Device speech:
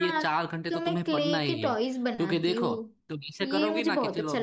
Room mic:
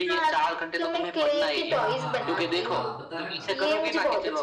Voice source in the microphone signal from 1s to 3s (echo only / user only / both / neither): both